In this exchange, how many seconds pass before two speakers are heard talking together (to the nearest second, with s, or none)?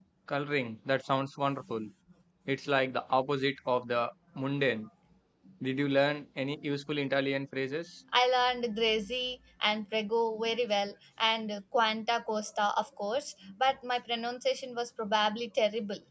none